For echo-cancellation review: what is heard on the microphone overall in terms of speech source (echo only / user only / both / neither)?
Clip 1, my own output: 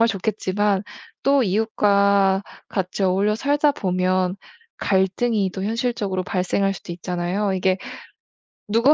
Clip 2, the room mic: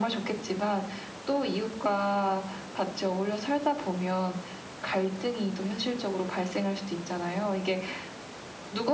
echo only